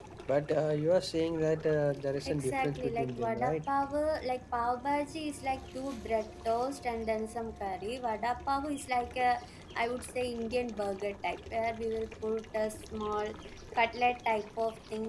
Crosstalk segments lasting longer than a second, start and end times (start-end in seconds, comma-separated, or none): 2.3-3.6